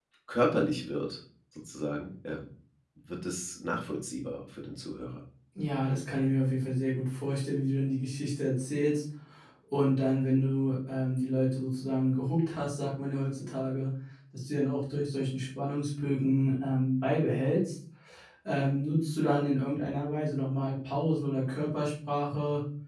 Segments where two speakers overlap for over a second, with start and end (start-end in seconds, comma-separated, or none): none